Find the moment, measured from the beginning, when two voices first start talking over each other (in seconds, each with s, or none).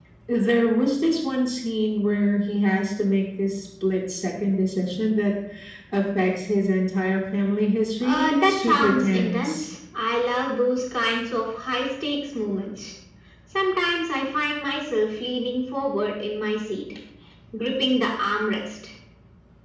8.0 s